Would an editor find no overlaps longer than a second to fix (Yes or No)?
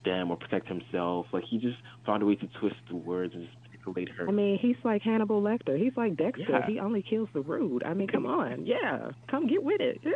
Yes